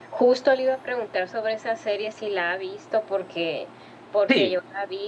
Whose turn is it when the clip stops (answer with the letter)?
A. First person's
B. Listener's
A